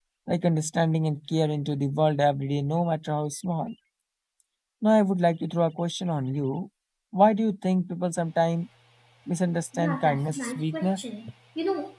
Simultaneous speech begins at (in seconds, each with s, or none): 9.7 s